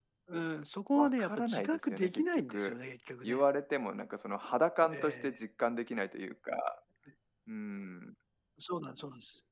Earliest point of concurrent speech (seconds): 0.9 s

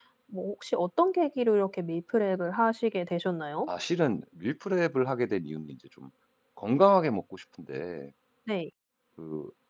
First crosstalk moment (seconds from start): none

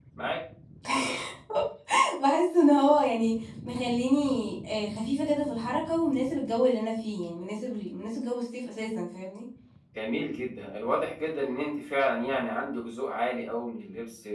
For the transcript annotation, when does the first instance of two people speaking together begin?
none

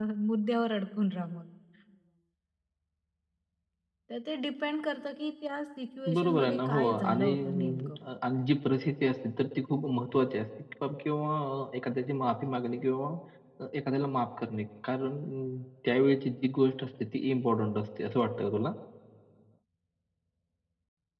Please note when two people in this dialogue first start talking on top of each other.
6.1 s

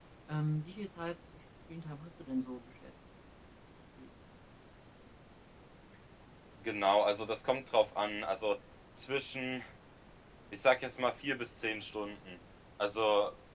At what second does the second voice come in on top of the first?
none

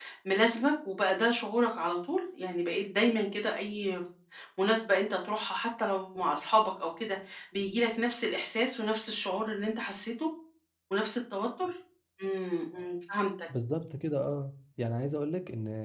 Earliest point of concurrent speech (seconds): none

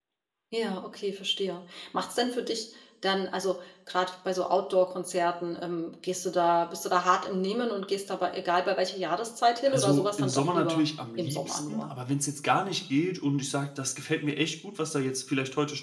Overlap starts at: 9.7 s

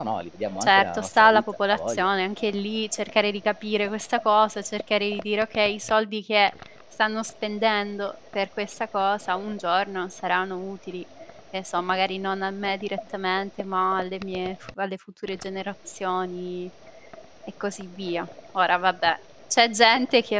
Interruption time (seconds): 0.6 s

